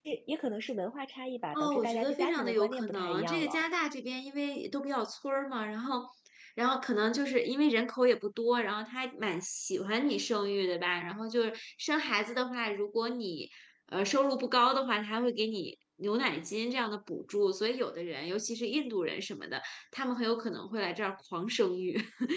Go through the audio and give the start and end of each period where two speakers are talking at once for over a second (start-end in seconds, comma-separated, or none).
1.5-3.6